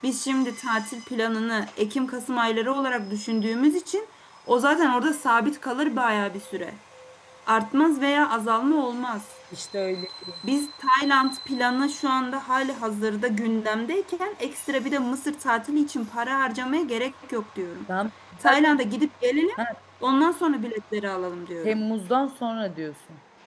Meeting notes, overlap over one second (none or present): none